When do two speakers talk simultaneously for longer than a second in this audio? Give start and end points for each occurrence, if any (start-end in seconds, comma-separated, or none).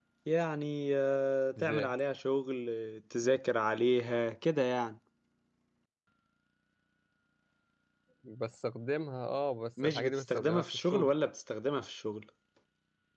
9.8-11.1